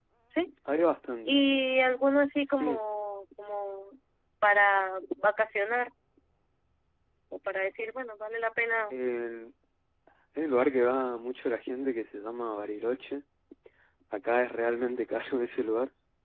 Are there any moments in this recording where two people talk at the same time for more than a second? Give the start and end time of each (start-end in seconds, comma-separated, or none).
none